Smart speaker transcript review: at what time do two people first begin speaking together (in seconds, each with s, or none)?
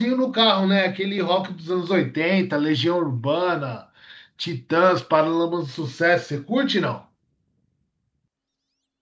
none